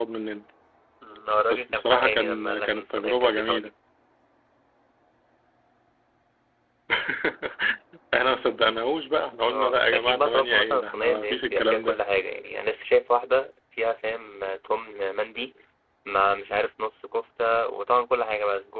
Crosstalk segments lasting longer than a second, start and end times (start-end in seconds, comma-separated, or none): 1.5-3.7, 9.4-12.0